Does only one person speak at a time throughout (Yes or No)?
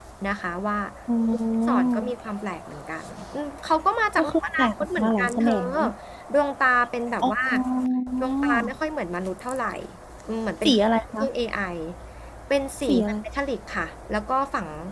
No